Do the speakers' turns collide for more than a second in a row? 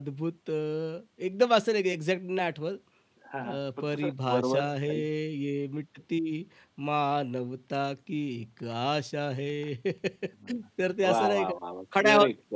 Yes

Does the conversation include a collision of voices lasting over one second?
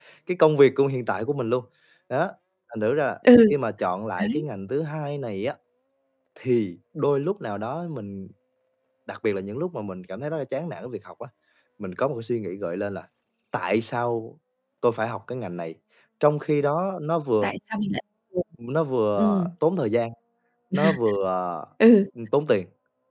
No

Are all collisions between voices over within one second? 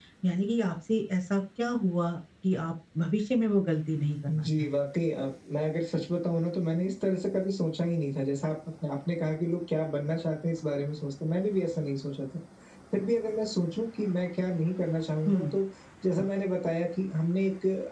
Yes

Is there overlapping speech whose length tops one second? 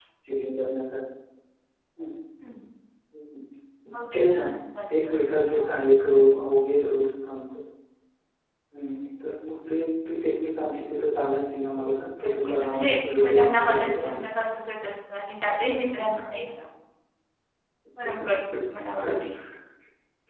Yes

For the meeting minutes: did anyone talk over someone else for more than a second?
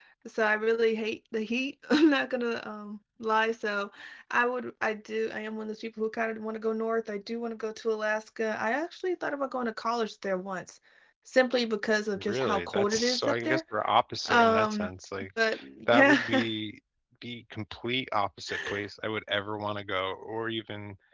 Yes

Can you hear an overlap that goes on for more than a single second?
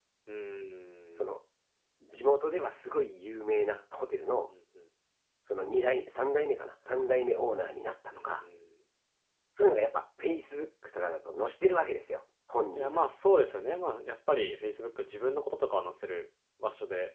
No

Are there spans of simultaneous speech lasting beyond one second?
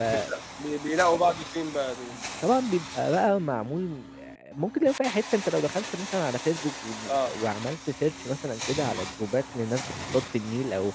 No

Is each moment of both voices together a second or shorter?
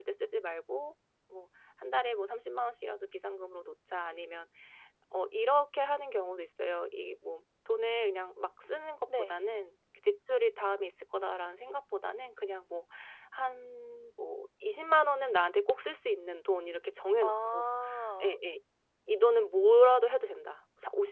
Yes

